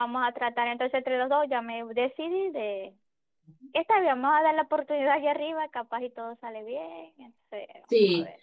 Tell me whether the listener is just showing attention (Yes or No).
No